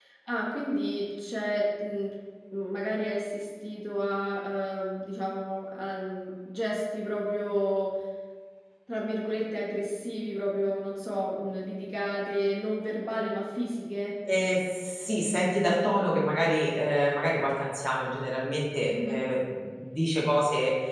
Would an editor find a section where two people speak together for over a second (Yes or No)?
No